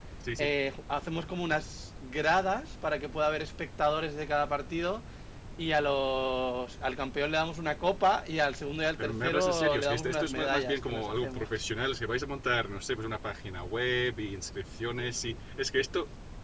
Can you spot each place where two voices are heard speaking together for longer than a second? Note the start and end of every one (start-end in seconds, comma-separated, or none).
9.0-11.5